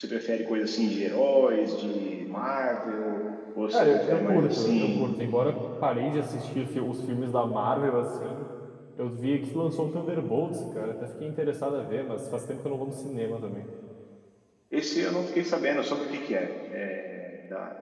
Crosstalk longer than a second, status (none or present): present